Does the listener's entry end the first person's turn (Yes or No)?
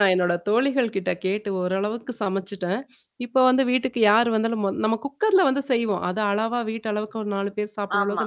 No